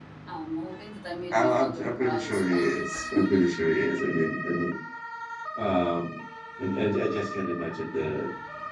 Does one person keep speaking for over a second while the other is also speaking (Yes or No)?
Yes